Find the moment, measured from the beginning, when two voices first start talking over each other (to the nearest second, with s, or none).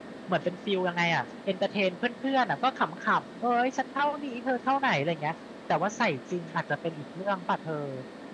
none